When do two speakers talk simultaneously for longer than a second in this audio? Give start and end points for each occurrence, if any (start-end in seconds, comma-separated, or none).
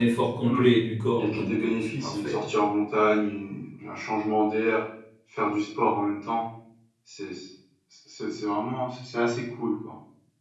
1.2-2.4